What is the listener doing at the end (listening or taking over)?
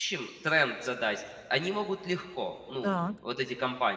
listening